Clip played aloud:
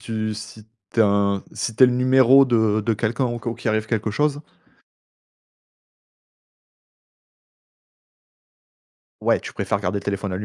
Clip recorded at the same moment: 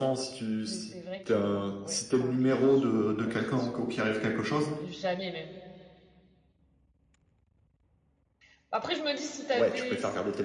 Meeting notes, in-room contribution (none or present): present